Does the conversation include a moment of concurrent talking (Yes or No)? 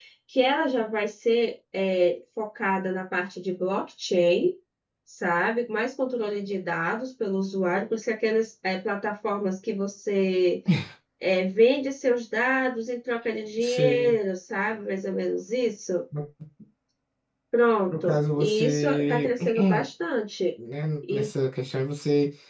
Yes